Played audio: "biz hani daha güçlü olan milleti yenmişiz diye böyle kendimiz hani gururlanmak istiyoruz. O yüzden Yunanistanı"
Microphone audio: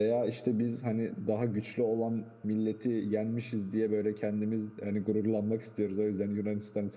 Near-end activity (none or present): none